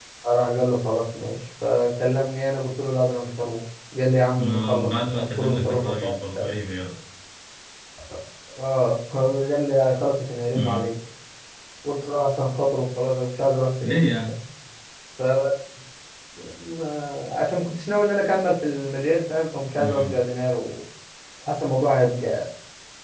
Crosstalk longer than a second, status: present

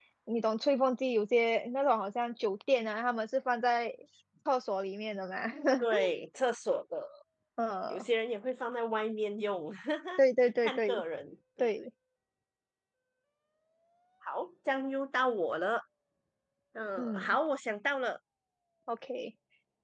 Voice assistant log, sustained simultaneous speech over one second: none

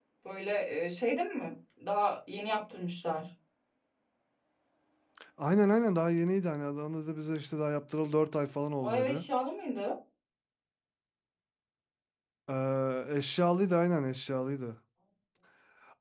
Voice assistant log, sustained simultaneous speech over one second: none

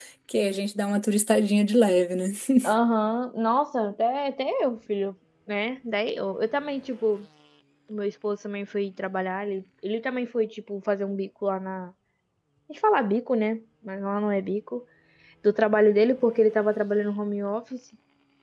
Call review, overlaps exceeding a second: none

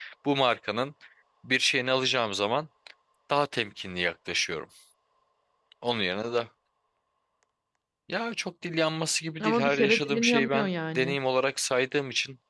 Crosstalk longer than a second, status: present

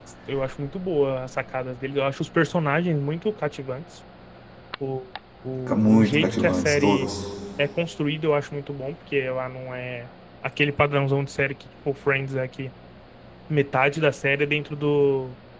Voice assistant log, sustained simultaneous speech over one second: present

